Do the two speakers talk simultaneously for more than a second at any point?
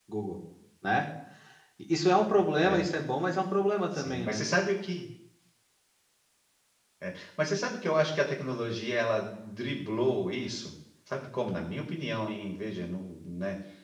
No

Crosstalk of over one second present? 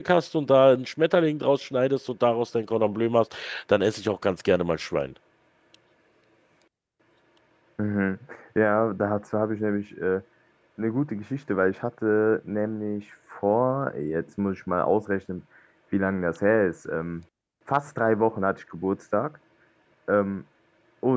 No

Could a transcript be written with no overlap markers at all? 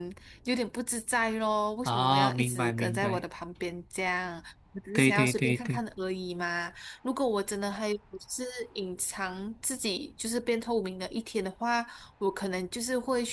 No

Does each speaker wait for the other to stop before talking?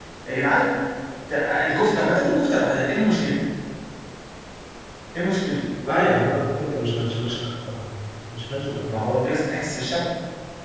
Yes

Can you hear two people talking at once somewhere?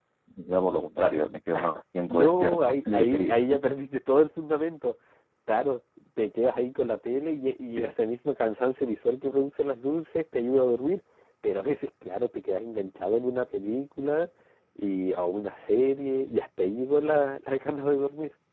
Yes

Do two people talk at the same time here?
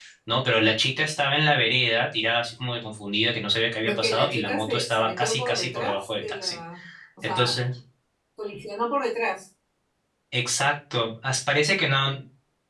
Yes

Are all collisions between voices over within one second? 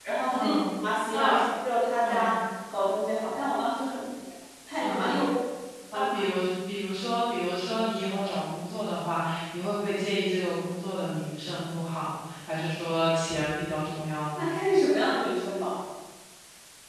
Yes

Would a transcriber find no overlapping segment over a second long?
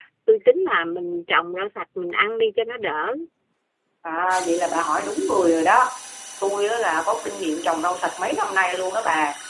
Yes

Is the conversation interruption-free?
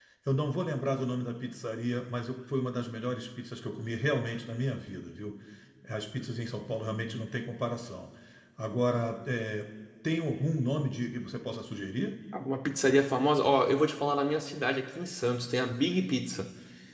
Yes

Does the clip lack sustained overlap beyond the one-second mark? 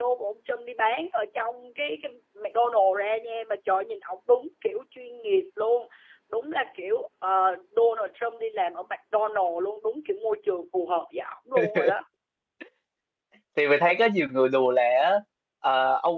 Yes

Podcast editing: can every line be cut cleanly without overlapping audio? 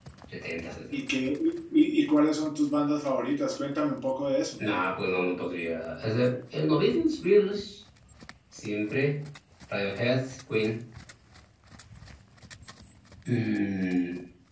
Yes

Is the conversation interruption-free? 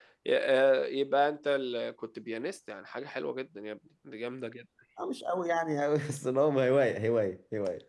Yes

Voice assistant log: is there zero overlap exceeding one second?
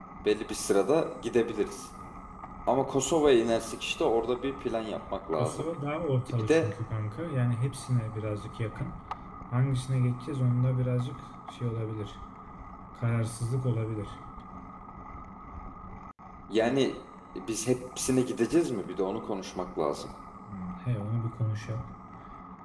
Yes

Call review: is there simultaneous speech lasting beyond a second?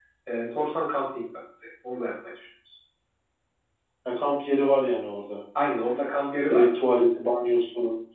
No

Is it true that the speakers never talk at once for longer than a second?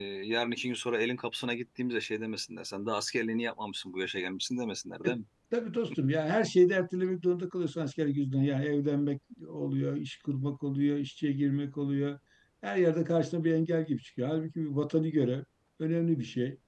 Yes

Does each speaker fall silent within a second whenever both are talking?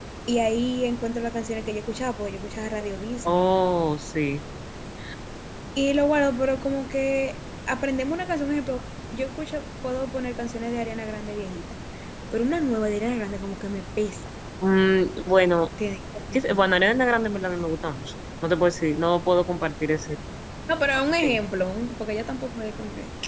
Yes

